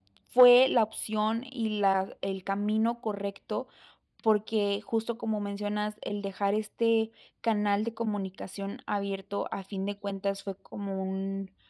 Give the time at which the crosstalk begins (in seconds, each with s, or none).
none